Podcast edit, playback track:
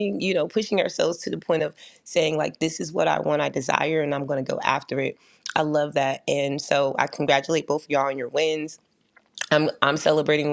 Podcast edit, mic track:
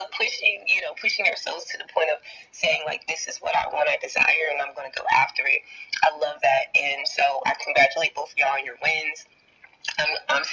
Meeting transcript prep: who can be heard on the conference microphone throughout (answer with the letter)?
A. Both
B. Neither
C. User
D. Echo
D